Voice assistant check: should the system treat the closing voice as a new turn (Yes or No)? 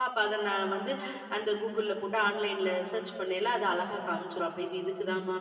No